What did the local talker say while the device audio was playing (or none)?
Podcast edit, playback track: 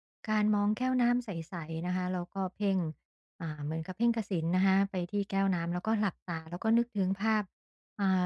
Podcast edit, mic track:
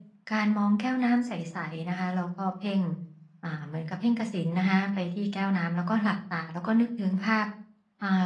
none